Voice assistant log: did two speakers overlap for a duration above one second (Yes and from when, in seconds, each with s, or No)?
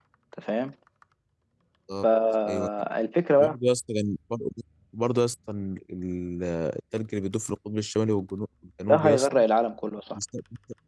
No